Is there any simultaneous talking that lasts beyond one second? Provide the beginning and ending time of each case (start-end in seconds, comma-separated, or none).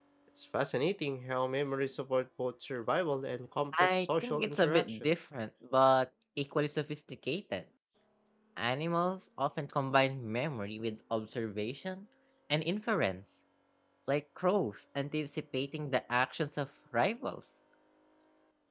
3.8-5.1